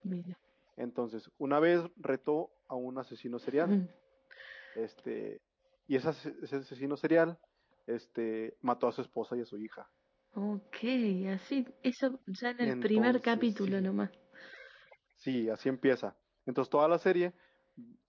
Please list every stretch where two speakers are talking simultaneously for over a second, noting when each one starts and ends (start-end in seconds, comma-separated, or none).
12.6-13.9